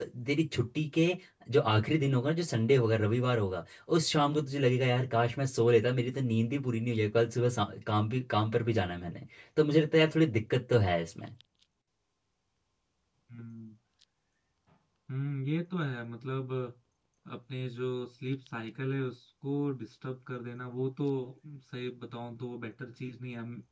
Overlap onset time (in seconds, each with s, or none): none